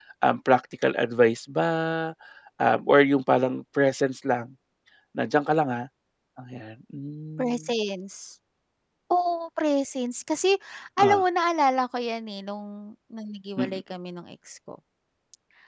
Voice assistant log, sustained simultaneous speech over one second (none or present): none